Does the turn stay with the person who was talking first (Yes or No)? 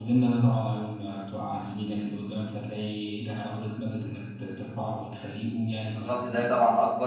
No